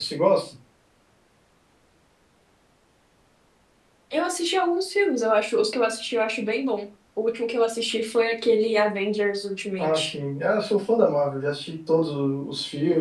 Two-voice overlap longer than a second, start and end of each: none

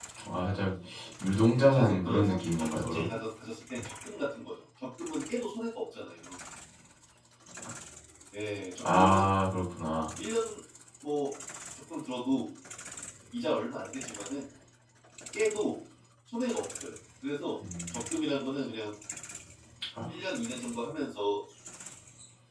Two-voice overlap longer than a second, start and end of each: 1.5-3.1

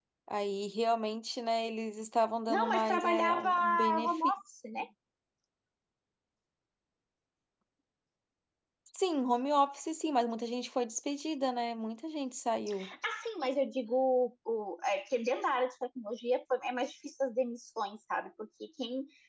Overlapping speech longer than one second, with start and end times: 2.5-4.2

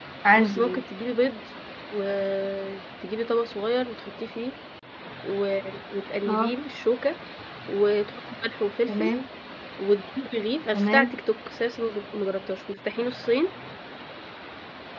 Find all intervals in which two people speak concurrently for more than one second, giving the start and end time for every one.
none

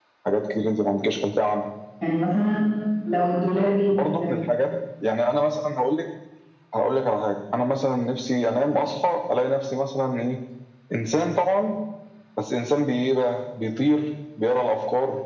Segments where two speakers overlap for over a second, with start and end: none

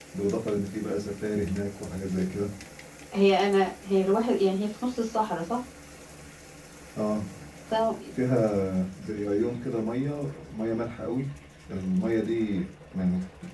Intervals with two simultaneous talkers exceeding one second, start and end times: none

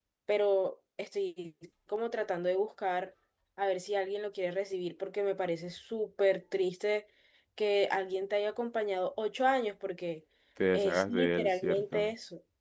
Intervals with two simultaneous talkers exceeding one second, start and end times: 10.7-12.1

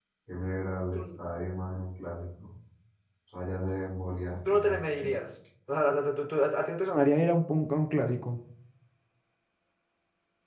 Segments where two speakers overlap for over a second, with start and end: none

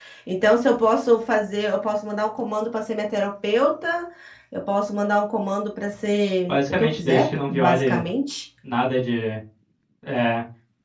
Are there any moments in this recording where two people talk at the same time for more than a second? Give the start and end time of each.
6.5-8.0

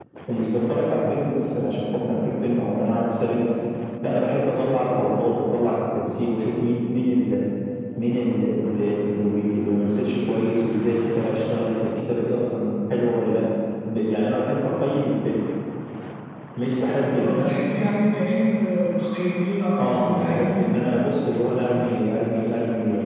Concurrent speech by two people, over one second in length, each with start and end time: 19.8-21.0

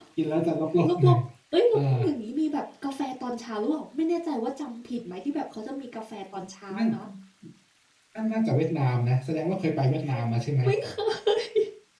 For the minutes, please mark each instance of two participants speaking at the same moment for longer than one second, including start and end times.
none

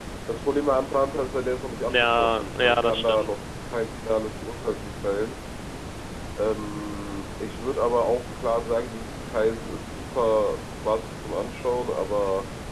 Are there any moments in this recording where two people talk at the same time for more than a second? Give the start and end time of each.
1.9-3.3

